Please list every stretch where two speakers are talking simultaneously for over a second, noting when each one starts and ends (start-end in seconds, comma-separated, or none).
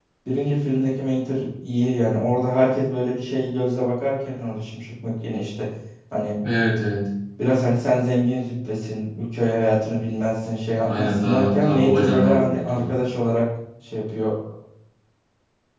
10.9-12.9